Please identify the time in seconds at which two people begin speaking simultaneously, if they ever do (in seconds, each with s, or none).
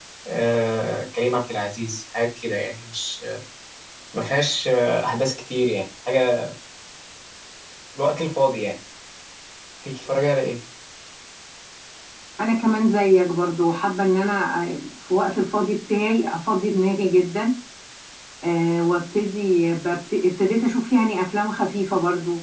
none